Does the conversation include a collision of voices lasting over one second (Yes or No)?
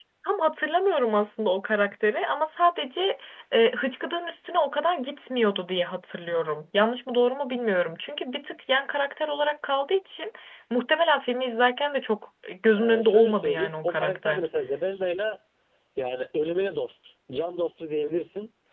Yes